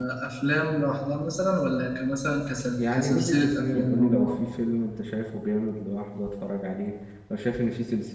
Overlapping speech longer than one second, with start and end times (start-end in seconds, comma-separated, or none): 2.9-4.3